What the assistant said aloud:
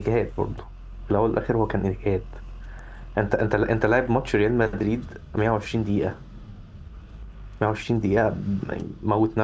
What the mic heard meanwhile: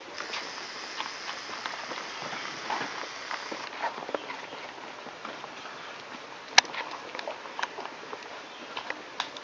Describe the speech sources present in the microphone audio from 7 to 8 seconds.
neither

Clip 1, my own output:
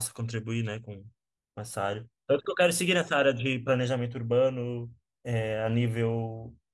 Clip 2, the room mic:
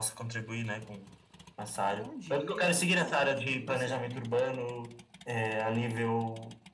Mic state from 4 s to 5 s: both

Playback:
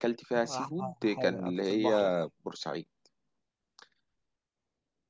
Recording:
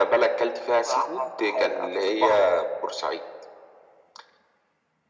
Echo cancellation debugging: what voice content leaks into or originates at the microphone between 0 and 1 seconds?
echo only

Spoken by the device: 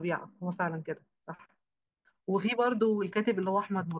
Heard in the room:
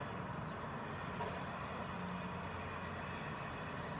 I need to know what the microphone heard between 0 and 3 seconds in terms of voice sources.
neither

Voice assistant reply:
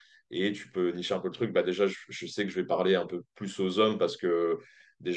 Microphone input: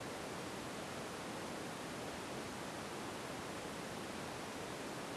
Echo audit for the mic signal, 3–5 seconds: neither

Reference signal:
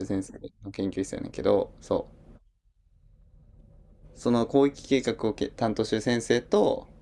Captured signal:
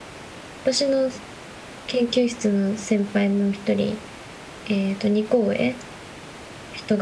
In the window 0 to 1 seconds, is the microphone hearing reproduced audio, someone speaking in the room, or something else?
user only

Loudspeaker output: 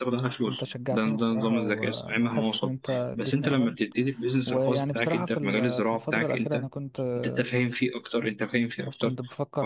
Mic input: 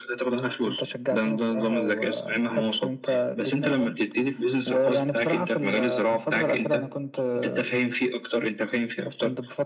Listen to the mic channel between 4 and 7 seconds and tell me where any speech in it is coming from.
echo only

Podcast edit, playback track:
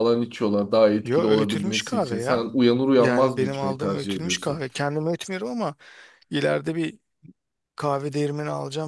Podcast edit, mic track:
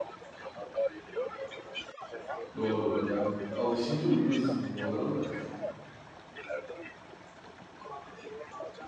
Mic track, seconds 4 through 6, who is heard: both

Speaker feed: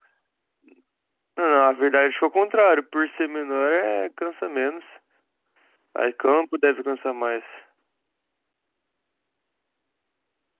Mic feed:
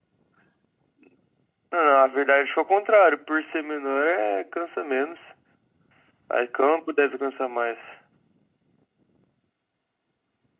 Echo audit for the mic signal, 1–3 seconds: echo only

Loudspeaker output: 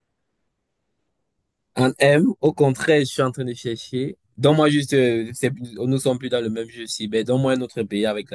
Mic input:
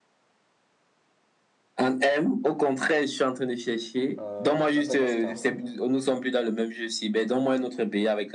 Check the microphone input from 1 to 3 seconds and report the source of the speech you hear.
echo only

